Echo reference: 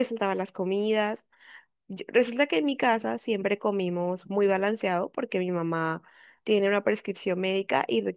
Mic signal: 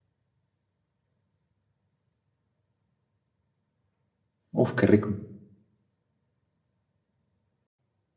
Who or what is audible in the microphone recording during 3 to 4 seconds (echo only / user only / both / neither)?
neither